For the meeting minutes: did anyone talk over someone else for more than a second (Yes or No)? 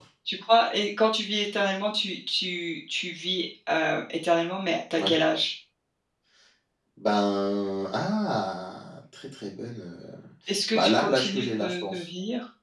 Yes